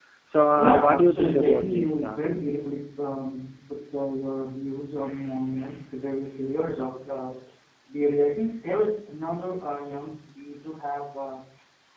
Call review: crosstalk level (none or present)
present